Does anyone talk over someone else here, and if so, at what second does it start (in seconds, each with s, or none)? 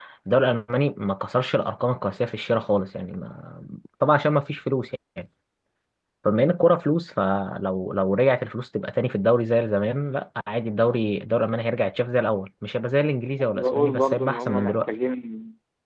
13.4 s